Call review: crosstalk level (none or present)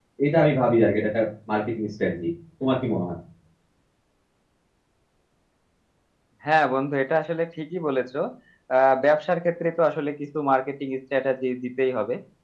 none